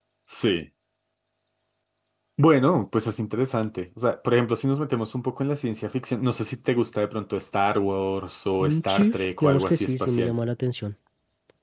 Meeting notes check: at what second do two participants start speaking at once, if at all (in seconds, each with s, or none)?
8.6 s